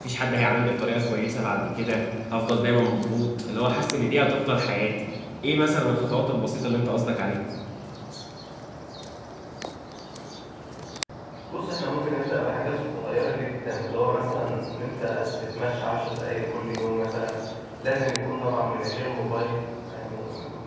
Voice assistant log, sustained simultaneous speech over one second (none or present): none